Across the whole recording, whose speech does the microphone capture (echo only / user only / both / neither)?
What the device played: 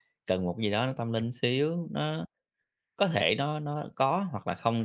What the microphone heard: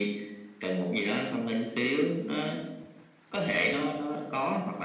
echo only